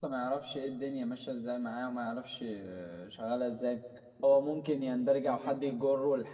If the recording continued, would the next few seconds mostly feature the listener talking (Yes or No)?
No